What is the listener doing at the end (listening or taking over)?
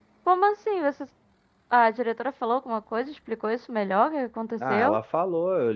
taking over